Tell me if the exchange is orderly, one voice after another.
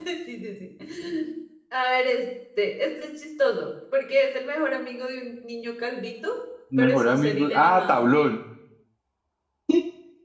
No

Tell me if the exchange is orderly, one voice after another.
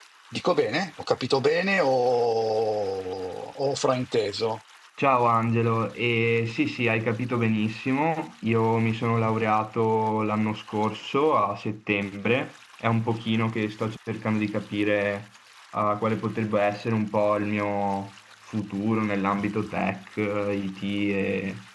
Yes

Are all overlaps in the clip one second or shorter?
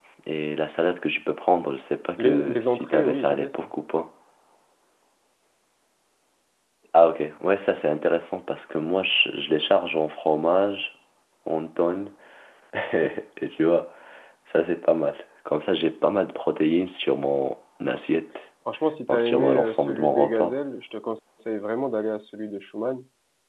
No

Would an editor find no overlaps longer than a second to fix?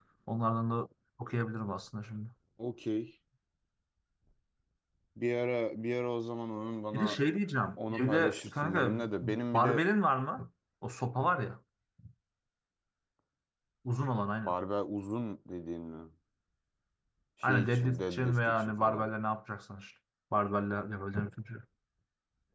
No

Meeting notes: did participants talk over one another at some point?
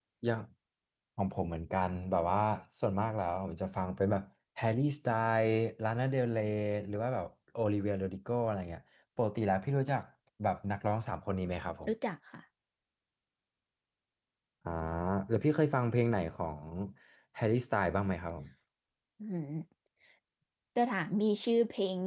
No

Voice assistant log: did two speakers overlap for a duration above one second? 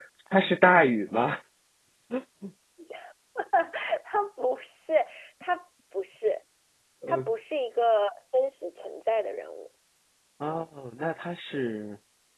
No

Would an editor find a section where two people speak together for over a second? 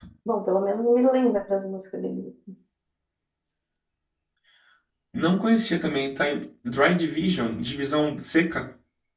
No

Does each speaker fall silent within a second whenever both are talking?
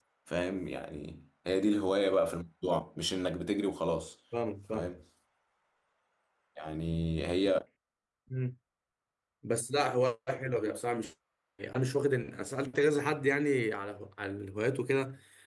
Yes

